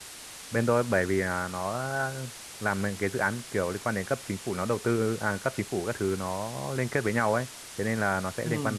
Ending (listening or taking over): listening